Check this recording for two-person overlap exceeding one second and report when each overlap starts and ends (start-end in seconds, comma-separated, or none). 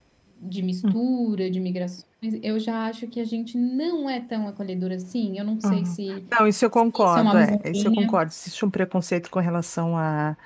6.9-8.2